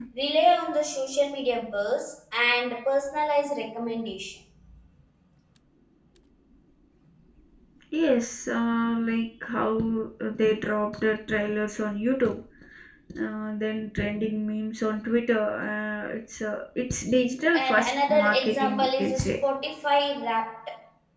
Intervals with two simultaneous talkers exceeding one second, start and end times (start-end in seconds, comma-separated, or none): 17.5-19.3